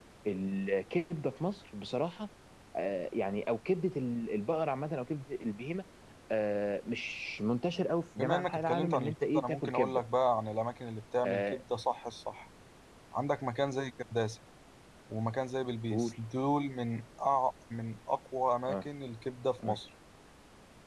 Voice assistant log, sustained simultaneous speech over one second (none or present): present